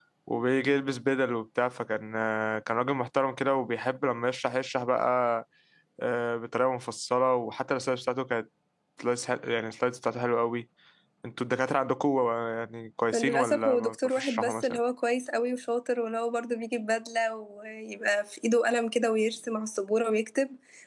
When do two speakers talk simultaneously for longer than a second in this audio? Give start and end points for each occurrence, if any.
13.1-14.8

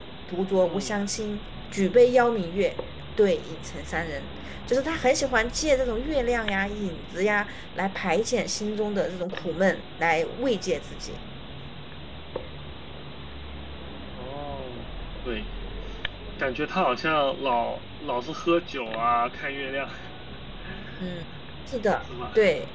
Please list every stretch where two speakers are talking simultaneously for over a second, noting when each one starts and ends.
none

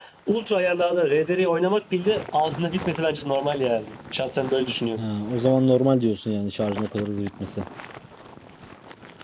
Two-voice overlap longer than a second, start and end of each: none

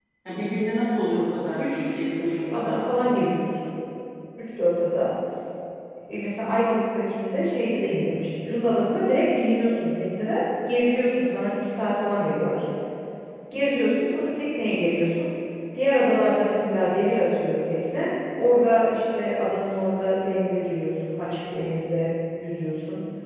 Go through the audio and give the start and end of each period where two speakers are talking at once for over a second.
1.6-3.3

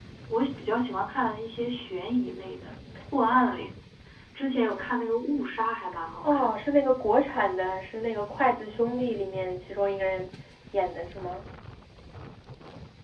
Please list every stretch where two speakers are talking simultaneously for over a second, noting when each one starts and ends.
none

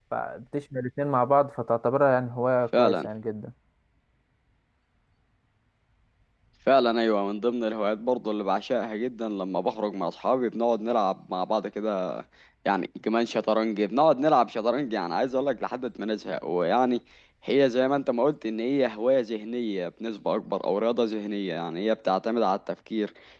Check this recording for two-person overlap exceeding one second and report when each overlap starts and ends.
none

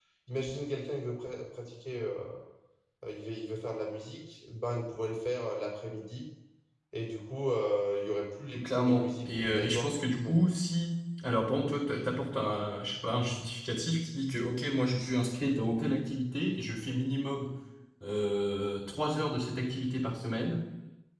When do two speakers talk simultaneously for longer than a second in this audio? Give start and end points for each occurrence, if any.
8.6-10.4

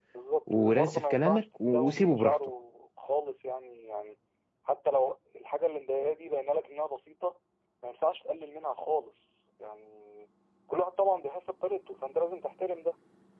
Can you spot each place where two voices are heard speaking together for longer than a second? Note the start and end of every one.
0.5-2.4

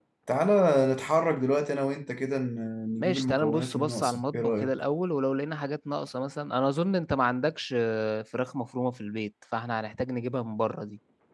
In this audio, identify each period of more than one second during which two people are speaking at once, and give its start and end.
3.0-4.7

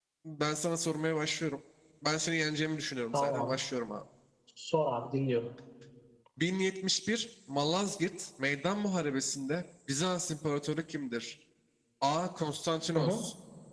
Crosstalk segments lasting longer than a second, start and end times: none

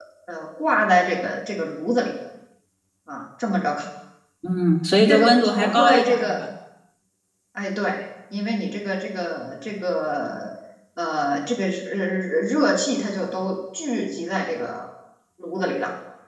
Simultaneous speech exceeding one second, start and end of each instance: 5.1-6.4

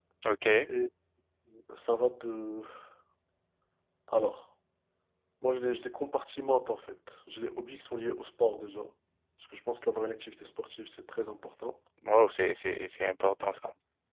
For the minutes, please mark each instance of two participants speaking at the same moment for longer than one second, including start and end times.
none

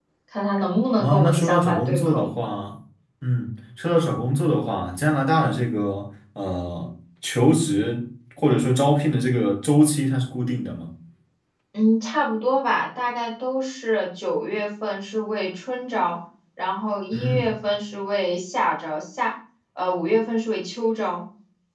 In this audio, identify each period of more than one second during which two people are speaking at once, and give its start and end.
1.0-2.4

